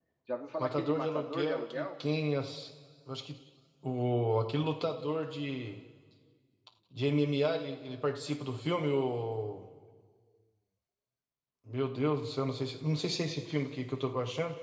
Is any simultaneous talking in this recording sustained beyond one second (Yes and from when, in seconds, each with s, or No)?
Yes, from 0.6 s